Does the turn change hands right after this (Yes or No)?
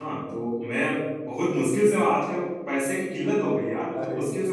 No